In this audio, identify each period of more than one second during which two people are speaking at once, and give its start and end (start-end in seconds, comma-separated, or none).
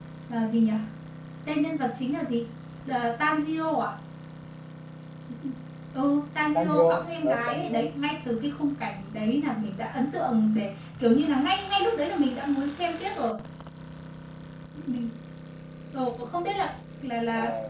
6.5-7.9